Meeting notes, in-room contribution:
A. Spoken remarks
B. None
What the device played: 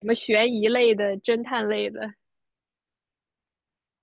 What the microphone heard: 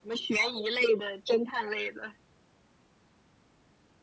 B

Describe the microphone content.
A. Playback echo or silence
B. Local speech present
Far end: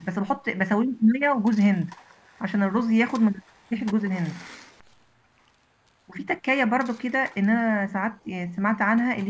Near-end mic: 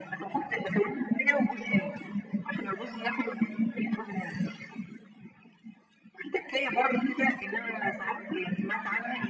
A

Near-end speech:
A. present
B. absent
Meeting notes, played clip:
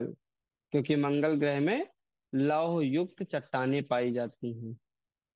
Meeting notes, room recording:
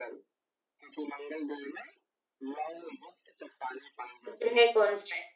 A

